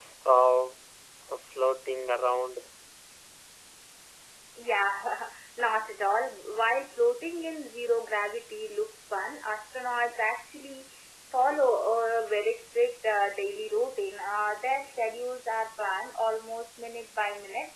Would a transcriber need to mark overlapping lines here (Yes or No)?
No